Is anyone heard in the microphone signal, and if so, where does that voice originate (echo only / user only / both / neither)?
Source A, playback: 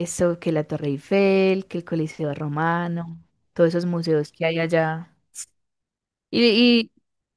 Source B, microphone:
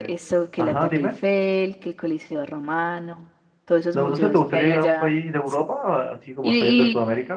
both